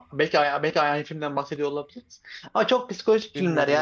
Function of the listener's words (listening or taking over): listening